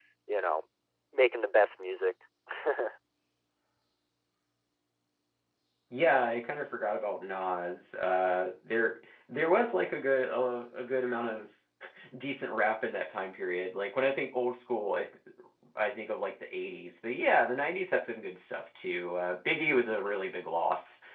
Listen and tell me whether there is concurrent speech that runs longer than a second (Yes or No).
No